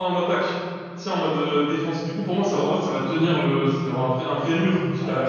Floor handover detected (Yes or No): Yes